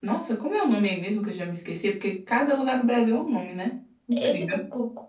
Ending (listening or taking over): taking over